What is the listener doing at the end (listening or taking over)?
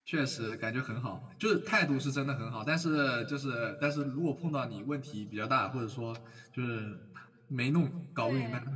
listening